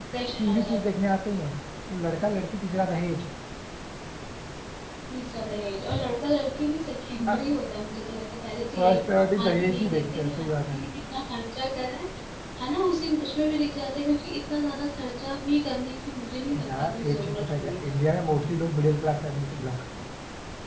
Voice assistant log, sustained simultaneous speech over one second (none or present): present